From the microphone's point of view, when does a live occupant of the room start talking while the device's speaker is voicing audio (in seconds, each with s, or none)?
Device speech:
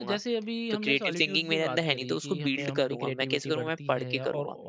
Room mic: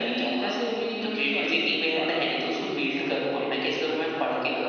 none